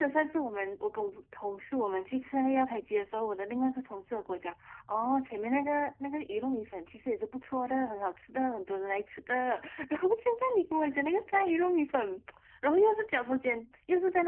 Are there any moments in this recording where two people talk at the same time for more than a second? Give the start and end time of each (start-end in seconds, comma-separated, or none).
none